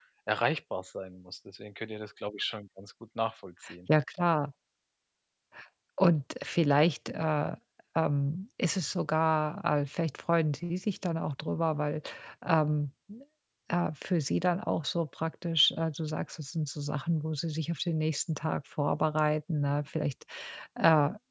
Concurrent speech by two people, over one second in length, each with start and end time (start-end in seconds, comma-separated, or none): none